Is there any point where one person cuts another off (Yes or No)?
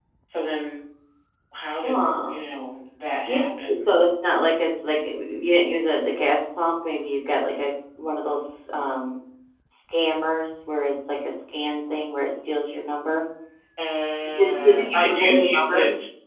Yes